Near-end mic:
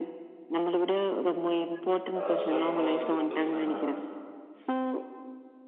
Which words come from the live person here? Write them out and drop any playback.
லாஸ்ட்டா புவனாகிட்டருந்து பேச்னே மேடம்

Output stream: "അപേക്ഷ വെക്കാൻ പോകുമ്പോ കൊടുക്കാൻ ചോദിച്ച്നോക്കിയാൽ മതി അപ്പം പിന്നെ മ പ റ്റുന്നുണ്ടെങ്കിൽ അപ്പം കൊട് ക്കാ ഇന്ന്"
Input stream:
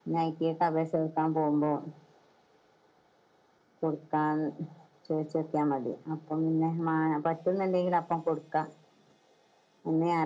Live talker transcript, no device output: none

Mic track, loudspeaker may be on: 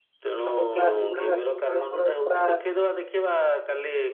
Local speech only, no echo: ସବୁ କ୍ଳାସ ଗୁଡ଼ା ସବୁ ଆମର ପୁରା

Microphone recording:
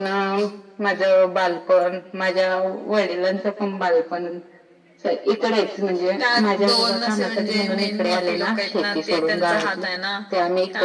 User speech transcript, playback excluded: none

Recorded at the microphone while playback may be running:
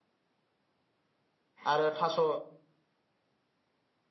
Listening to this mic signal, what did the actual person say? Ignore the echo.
आरो थास'

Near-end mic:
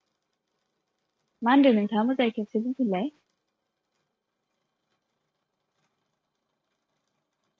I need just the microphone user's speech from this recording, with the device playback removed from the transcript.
मा होनदों नोंथाङा मोजाङै खनसे बुंफिनलाय

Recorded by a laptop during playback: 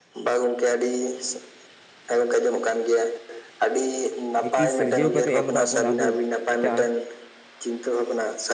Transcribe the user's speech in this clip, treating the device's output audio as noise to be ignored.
ᱞᱤᱯᱤ ᱥᱤᱨᱡᱟᱹᱣ ᱠᱟᱛᱮᱫ ᱮᱢ ᱟᱠᱟ ᱵᱚᱱ ᱟᱵᱚ ᱡᱮᱴᱟ

